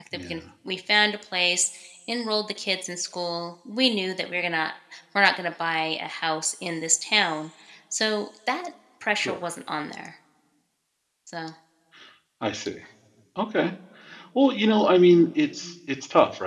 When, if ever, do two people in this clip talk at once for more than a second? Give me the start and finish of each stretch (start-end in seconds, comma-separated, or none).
none